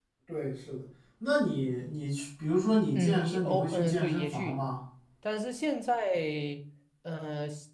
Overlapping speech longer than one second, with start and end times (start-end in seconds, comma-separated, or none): 2.9-4.6